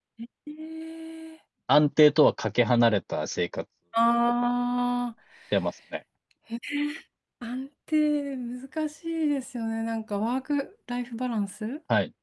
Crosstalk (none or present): none